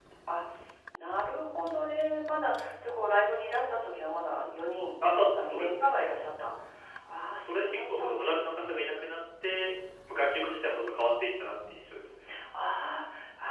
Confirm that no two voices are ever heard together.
No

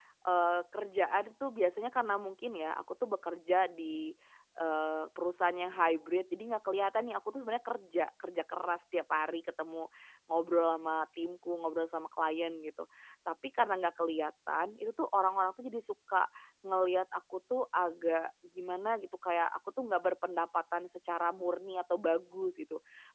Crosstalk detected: No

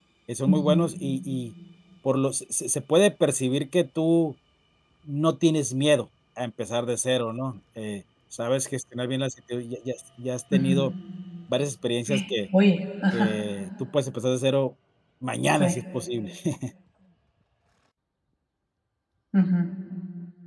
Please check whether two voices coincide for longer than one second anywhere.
No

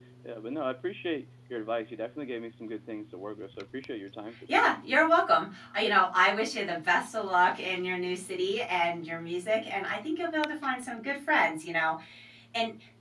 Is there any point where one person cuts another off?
No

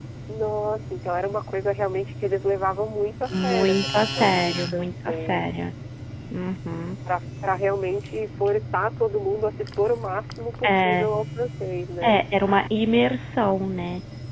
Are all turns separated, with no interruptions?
No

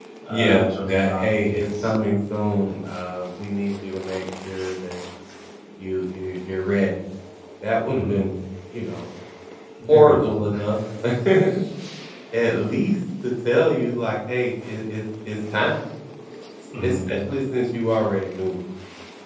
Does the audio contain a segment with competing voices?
Yes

